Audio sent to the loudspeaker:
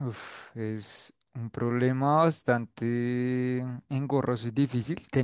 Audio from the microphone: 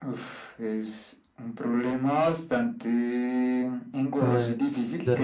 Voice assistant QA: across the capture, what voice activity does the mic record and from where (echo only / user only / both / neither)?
both